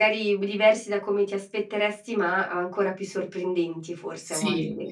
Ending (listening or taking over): taking over